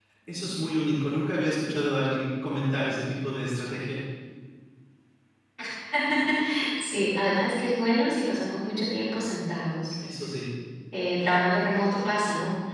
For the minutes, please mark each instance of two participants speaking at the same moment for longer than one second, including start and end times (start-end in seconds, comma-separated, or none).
none